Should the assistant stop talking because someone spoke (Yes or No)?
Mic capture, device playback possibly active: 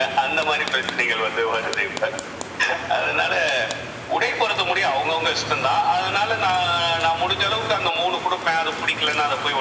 No